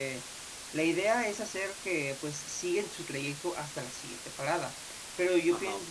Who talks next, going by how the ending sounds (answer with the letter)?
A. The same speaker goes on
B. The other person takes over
A